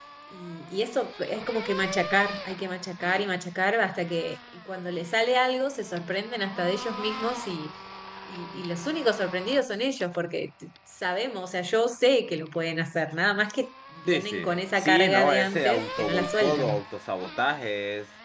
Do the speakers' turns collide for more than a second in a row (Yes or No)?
Yes